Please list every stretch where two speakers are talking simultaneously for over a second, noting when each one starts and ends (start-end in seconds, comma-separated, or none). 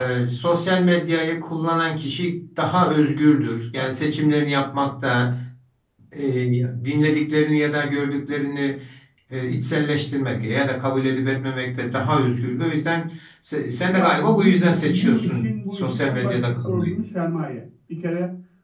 13.9-16.9